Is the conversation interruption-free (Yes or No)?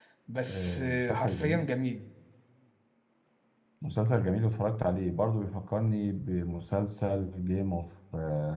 No